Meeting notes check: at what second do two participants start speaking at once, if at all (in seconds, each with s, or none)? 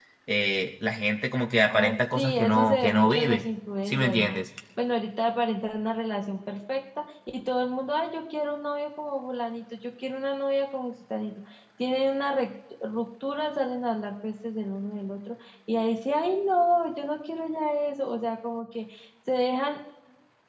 1.7 s